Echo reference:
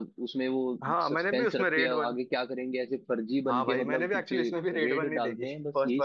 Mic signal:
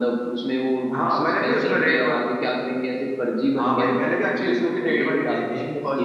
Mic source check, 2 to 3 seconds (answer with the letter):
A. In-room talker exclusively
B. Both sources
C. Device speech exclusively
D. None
C